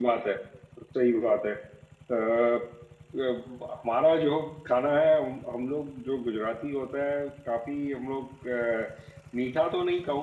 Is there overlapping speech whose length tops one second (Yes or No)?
No